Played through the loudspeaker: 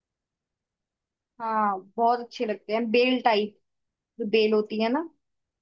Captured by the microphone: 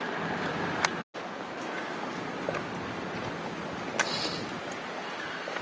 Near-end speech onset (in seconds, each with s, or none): none